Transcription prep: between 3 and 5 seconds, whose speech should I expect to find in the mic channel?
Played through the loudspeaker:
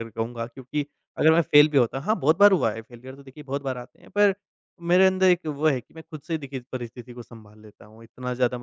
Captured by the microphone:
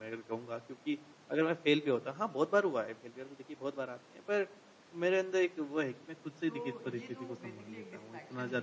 echo only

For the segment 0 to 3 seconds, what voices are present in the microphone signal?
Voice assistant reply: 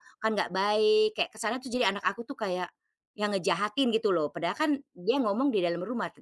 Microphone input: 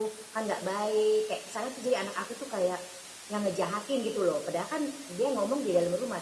echo only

